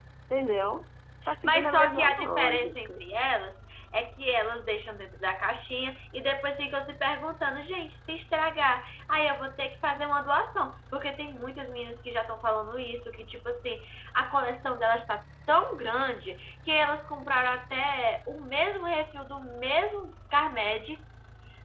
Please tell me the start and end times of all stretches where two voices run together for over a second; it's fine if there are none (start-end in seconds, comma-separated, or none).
1.4-3.0